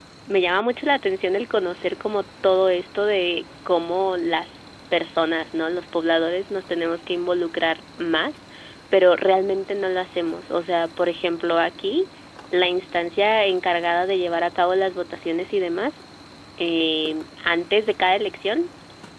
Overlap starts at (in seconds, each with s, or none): none